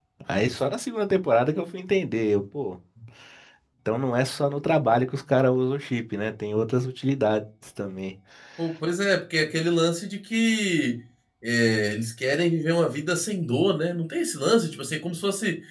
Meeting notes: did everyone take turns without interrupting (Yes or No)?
Yes